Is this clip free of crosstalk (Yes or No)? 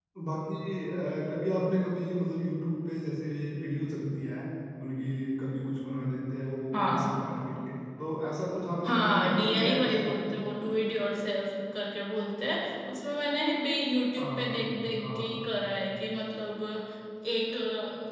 No